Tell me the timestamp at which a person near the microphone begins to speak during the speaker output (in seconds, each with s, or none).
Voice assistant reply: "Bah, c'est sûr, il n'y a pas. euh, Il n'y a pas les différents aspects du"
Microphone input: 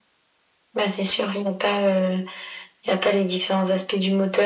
none